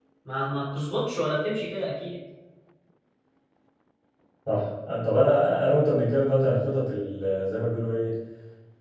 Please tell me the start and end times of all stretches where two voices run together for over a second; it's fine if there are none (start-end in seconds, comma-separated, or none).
none